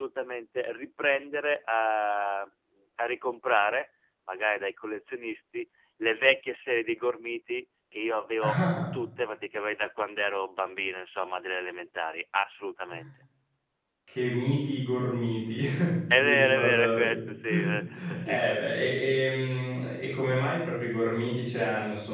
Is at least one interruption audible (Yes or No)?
Yes